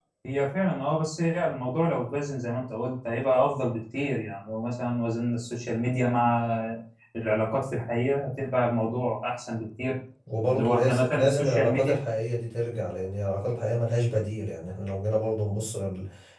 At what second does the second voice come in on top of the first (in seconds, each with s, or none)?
10.6 s